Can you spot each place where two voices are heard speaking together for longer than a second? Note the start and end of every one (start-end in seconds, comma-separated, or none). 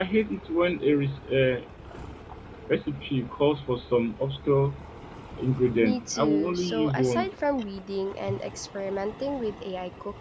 5.8-7.3